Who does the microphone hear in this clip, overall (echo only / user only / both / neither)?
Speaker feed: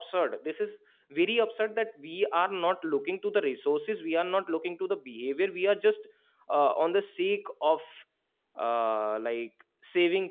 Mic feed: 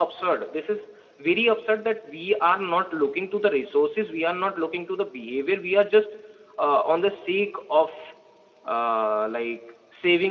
echo only